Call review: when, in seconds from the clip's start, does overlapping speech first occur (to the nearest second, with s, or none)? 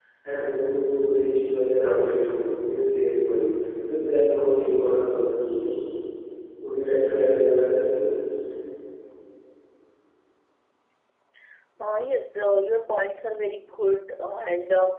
none